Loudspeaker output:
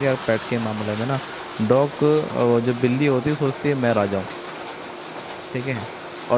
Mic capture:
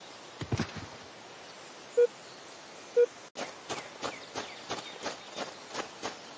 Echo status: none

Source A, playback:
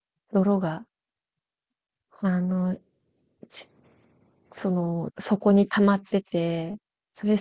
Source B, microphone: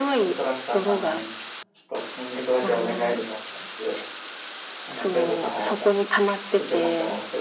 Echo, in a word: present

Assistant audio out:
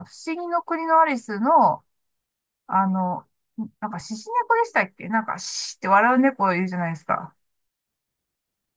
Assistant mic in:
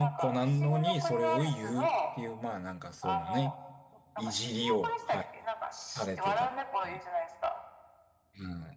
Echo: present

